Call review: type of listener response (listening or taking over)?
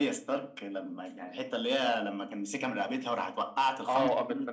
taking over